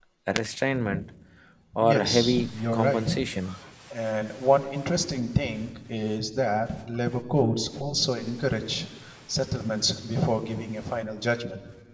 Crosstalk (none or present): present